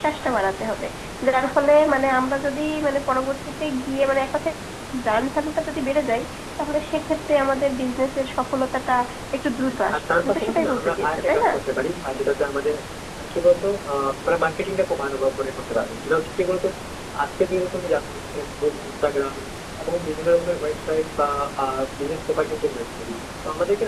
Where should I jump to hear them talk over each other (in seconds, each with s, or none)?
9.9 s